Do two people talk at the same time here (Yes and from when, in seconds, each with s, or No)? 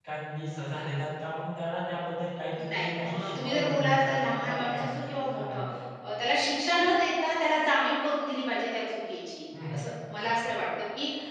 Yes, from 2.6 s